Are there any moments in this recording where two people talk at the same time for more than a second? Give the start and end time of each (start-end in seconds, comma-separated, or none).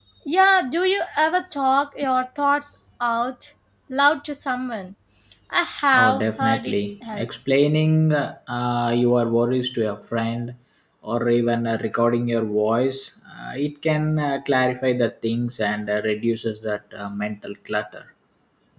5.9-7.3